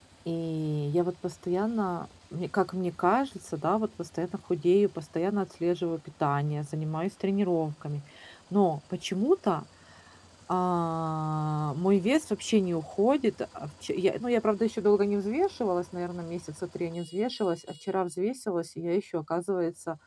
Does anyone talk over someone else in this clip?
No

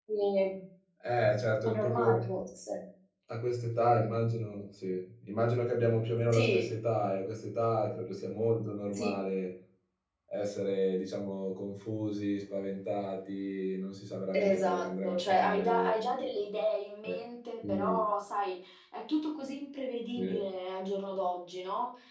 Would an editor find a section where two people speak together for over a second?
Yes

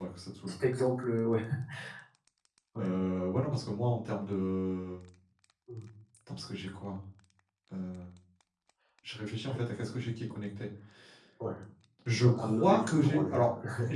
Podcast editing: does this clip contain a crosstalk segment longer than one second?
Yes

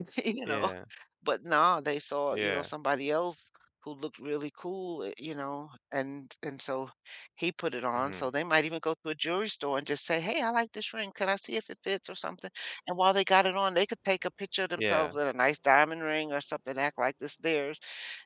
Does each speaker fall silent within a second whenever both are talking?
Yes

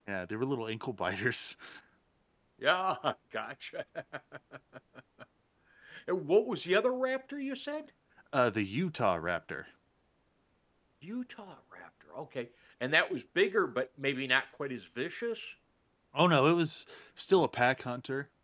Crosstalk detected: No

